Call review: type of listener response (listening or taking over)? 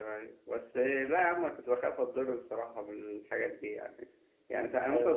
listening